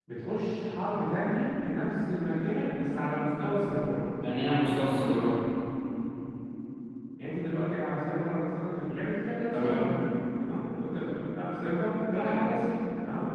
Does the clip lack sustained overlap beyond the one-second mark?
Yes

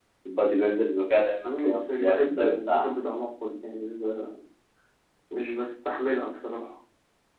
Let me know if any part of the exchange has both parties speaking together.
Yes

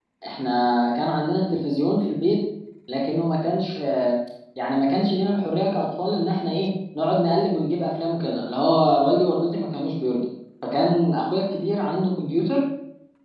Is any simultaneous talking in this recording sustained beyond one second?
No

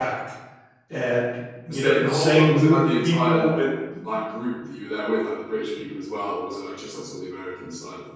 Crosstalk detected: Yes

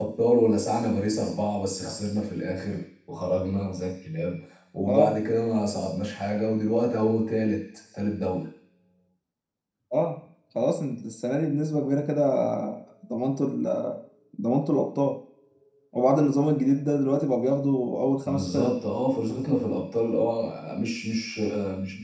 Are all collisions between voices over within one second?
Yes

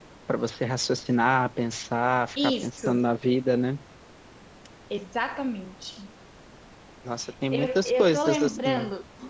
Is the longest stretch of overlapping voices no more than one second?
No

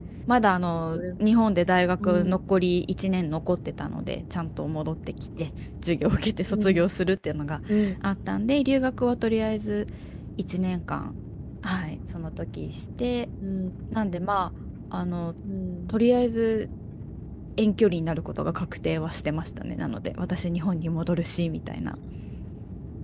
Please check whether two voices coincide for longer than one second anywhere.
No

